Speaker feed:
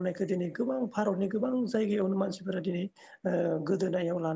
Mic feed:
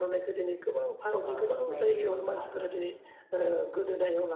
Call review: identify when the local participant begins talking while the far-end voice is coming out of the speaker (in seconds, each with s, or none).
1.3 s